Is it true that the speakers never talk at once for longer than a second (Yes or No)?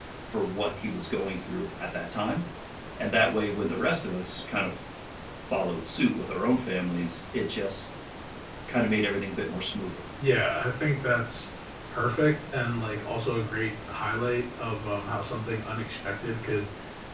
Yes